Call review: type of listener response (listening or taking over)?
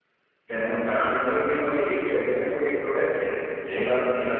listening